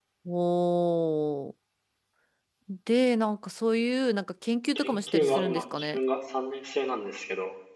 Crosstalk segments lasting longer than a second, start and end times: 4.8-6.0

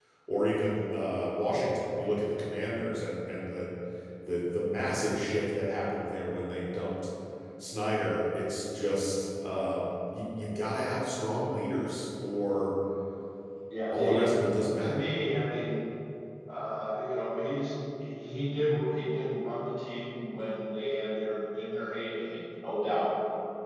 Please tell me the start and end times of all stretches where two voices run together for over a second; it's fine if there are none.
none

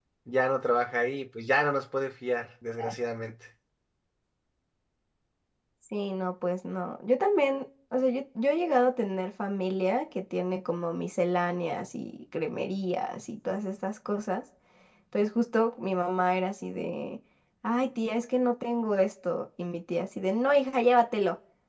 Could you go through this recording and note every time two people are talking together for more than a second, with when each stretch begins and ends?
none

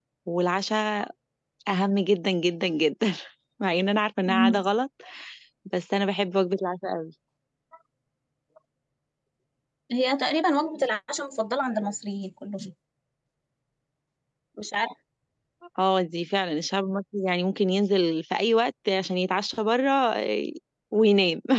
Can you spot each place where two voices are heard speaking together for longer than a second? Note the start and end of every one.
none

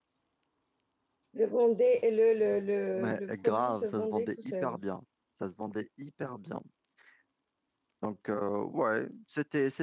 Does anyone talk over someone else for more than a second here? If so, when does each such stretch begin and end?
2.9-4.8

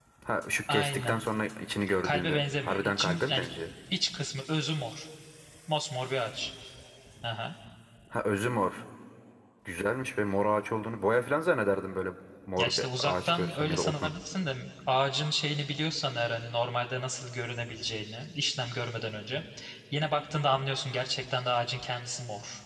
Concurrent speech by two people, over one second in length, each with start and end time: 2.0-3.4, 12.6-14.1

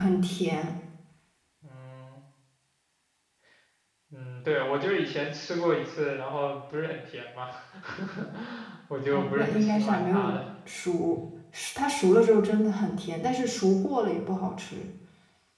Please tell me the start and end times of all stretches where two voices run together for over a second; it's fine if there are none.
9.1-10.4

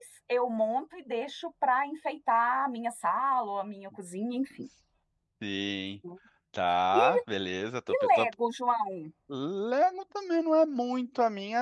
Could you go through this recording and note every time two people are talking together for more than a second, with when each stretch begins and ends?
none

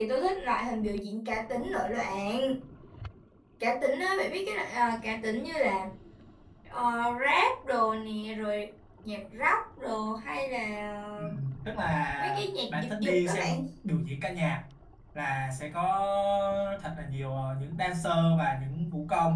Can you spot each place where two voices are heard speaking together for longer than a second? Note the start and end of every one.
12.2-13.6

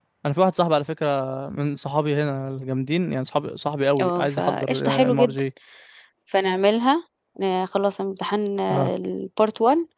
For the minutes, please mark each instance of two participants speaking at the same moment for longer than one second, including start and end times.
4.0-5.4

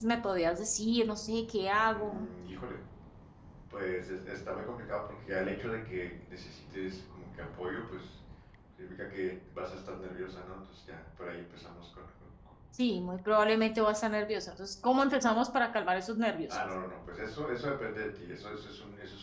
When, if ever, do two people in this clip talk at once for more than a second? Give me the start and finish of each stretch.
none

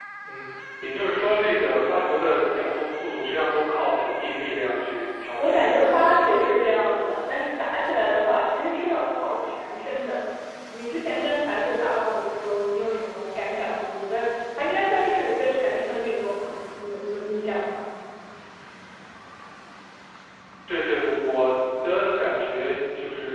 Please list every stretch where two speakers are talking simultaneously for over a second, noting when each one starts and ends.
5.4-7.4

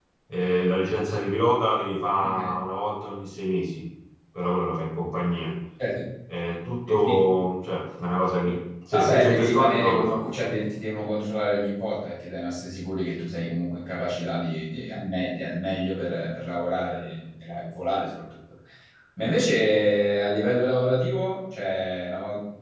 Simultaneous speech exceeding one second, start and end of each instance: 8.9-10.5

